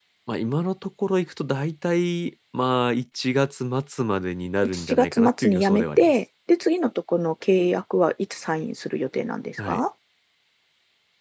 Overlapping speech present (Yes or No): Yes